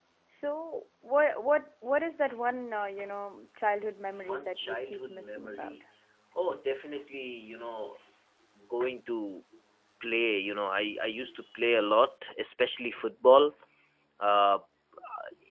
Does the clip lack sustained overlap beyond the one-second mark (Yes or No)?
No